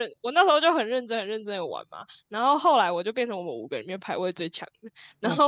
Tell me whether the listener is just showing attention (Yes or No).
Yes